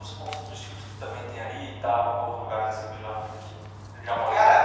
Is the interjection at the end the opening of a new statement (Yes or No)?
Yes